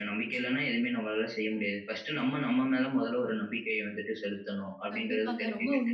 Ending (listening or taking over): taking over